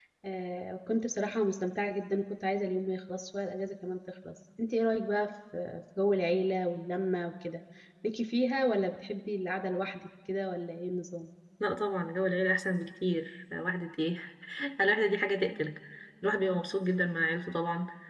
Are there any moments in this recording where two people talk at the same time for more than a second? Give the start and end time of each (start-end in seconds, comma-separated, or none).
none